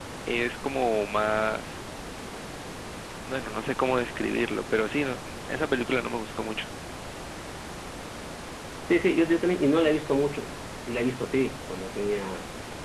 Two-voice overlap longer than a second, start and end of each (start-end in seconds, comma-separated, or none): none